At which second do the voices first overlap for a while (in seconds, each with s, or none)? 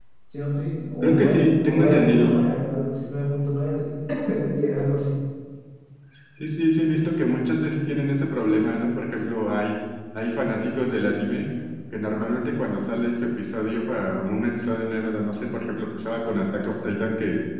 1.0 s